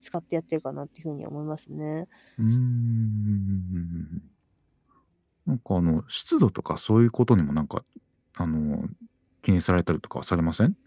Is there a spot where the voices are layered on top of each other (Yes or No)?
No